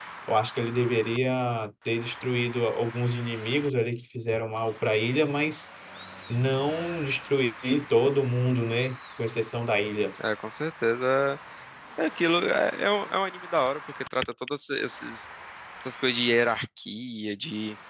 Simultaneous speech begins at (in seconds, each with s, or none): none